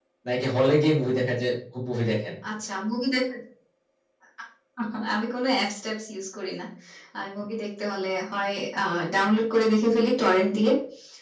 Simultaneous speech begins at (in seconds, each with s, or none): none